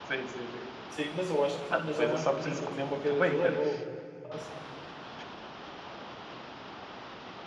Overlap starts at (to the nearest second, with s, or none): 2 s